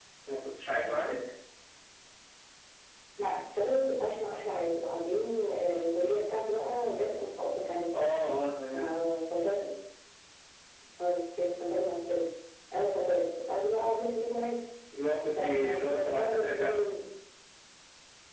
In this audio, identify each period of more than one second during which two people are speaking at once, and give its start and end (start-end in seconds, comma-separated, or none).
15.3-16.9